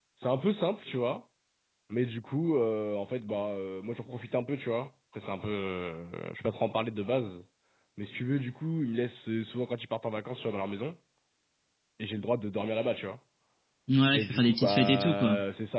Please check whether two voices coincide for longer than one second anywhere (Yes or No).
Yes